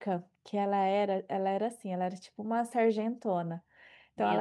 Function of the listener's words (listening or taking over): listening